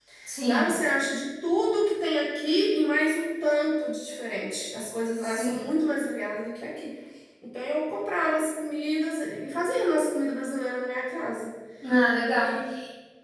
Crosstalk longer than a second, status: none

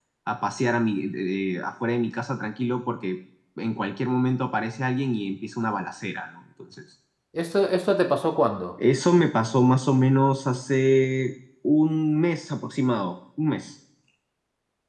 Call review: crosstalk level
none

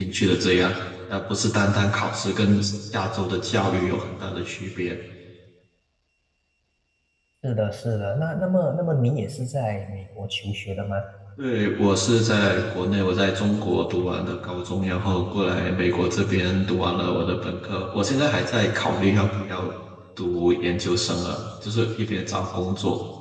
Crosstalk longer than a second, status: none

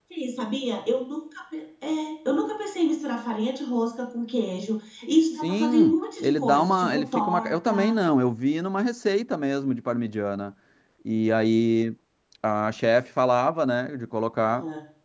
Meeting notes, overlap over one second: present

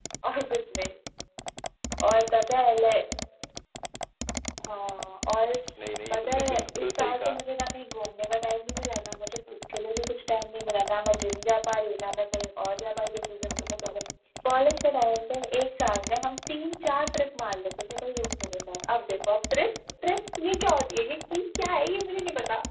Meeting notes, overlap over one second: present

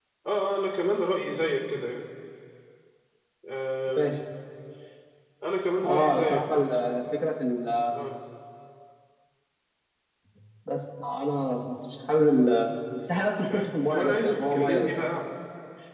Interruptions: present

